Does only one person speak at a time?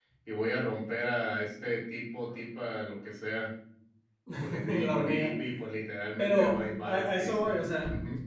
No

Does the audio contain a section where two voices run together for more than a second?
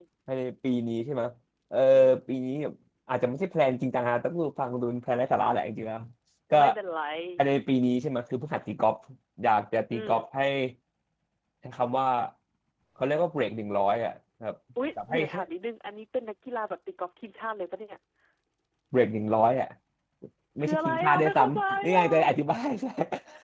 Yes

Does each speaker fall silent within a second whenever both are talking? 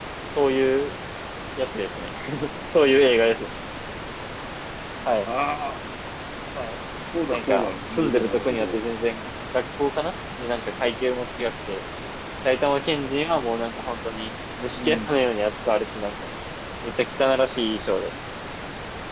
No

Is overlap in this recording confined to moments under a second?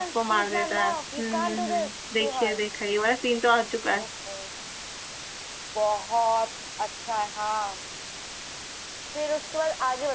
No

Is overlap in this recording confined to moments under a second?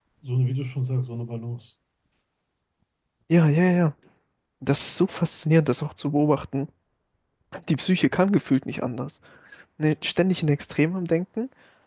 Yes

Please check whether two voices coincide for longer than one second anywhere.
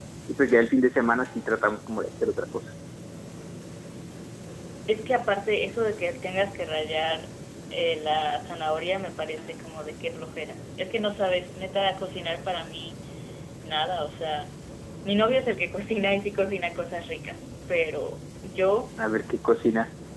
No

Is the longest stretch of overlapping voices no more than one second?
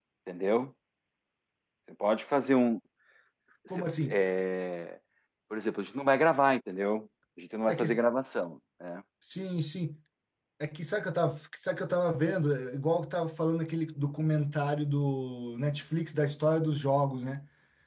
Yes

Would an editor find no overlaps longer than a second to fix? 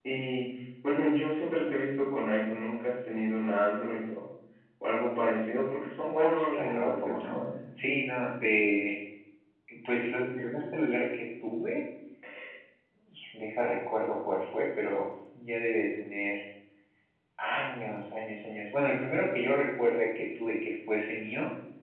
No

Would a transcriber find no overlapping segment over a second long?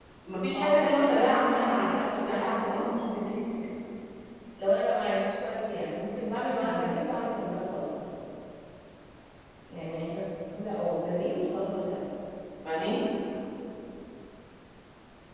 No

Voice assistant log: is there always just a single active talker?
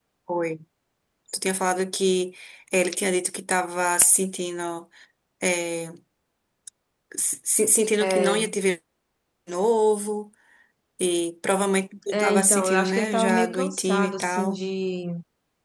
No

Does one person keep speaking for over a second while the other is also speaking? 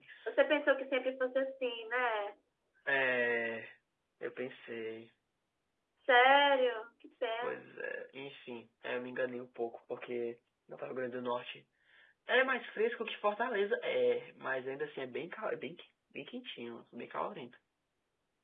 No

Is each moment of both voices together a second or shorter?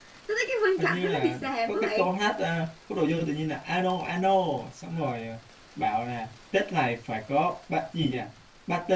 No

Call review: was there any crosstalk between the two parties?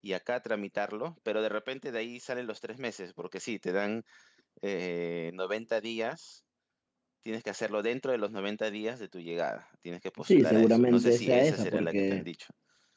Yes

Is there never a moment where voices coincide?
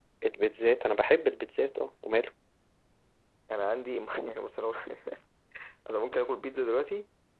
Yes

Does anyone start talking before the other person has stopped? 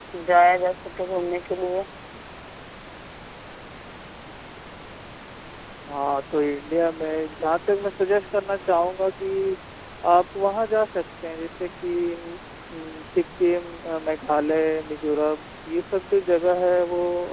No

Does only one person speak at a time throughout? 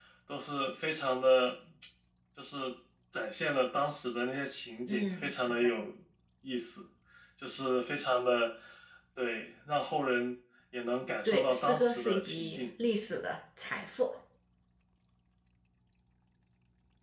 No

